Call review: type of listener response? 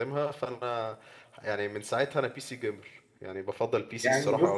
taking over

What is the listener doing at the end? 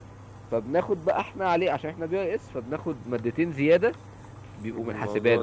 taking over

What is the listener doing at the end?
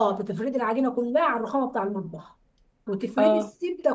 listening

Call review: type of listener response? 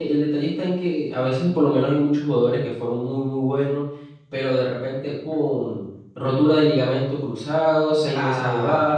listening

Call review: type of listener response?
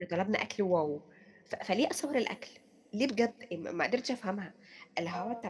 listening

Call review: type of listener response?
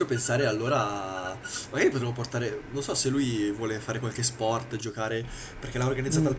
taking over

